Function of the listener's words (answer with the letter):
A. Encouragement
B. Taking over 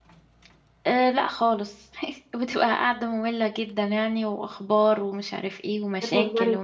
B